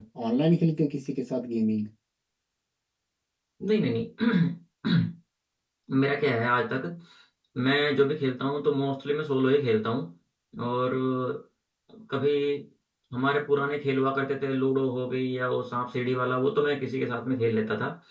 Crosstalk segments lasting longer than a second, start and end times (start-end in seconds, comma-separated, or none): none